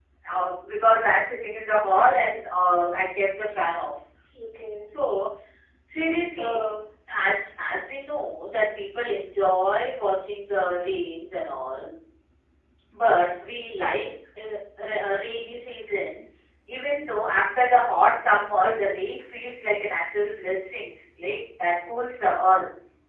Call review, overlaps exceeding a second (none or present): none